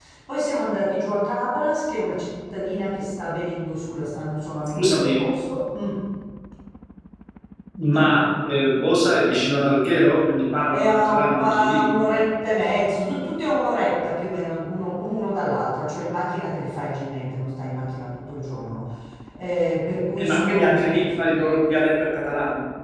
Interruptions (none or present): present